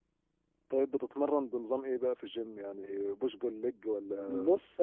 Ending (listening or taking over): taking over